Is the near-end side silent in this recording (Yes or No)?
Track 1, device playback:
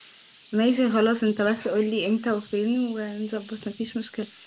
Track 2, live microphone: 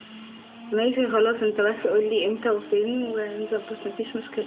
Yes